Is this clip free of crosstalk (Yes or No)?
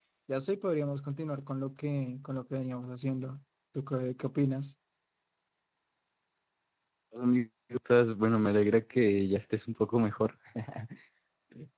Yes